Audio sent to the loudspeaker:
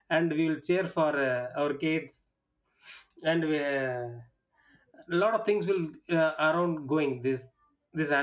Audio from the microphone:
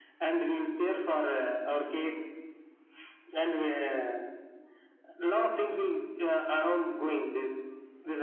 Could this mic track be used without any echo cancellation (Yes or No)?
No